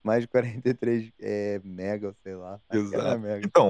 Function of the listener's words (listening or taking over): taking over